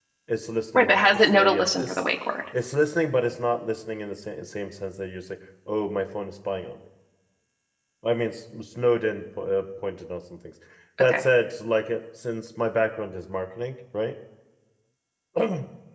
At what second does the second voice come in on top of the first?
0.7 s

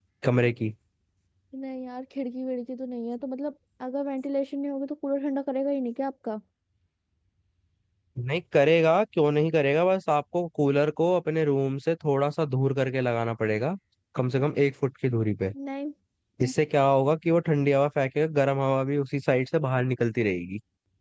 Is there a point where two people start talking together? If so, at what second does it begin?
none

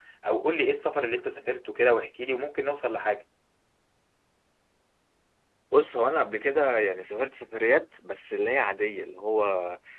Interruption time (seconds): none

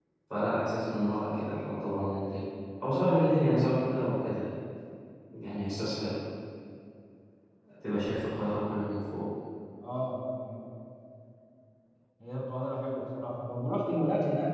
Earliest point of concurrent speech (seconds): none

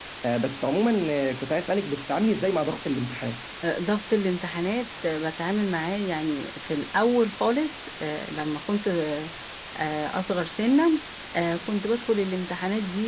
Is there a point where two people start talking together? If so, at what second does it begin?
none

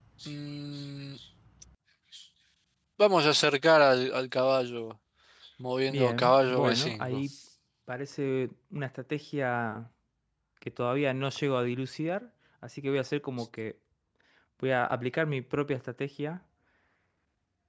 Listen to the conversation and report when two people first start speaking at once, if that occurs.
5.9 s

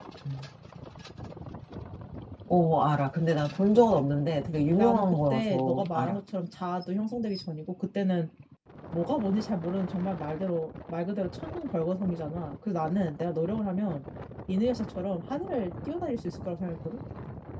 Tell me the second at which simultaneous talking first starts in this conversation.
4.8 s

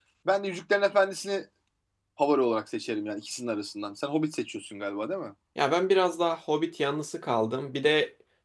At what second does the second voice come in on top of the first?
none

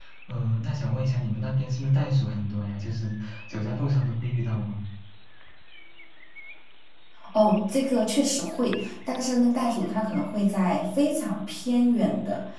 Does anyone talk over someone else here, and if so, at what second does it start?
none

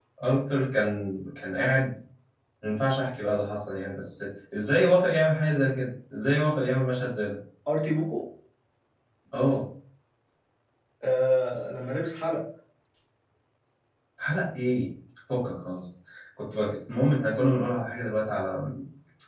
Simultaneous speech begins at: none

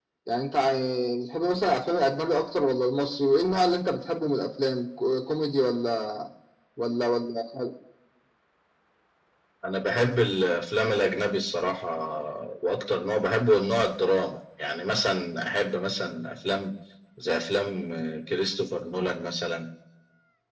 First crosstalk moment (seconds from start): none

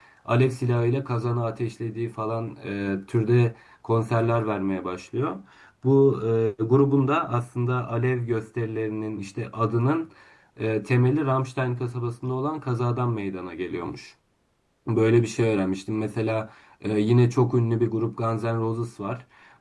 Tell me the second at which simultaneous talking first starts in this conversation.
none

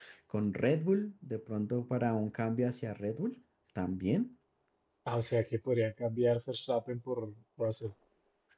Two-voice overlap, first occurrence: none

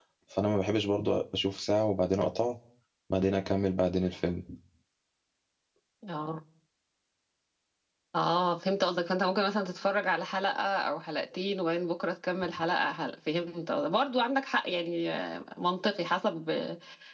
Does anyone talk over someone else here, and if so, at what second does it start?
none

